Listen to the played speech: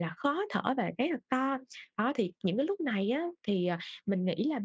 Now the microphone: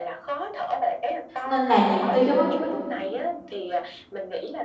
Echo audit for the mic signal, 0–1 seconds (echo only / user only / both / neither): echo only